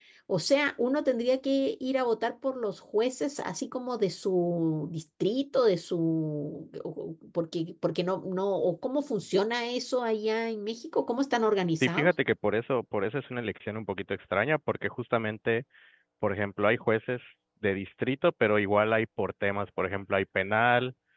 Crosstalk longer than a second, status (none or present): none